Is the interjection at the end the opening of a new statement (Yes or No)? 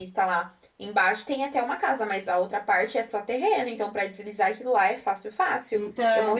Yes